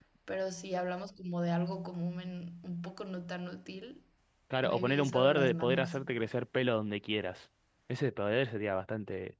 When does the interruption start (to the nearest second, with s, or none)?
5 s